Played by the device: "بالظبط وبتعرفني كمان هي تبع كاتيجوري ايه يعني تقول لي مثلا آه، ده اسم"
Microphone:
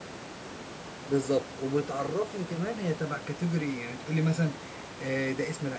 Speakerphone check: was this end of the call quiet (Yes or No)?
Yes